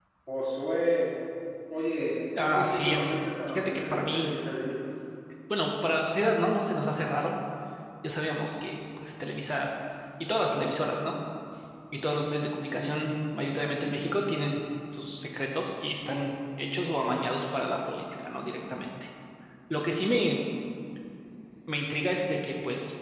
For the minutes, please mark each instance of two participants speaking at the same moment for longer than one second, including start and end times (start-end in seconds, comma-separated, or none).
2.4-4.3